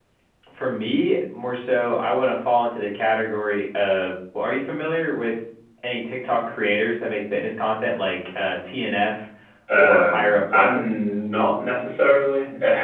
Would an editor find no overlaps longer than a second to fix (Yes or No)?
No